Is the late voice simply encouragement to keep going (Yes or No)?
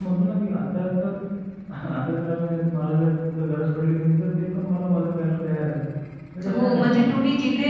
No